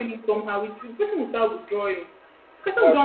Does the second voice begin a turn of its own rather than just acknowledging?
No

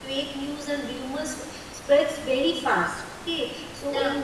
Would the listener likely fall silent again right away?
Yes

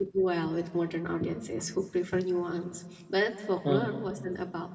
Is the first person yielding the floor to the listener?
No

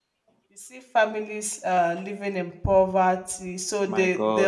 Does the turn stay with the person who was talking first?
Yes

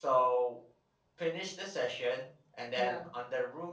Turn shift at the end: No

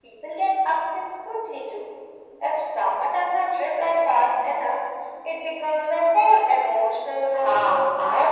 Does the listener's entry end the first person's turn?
Yes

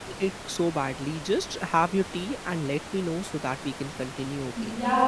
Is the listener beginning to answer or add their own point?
Yes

